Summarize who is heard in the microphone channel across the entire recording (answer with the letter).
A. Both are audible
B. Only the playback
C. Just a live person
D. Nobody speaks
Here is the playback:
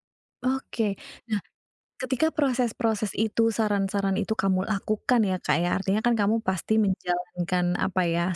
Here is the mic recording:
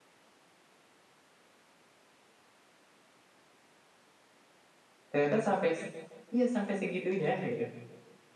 C